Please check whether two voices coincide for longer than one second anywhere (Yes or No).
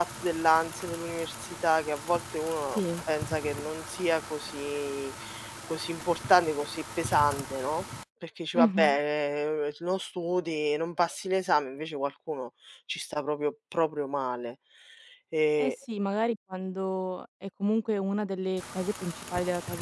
No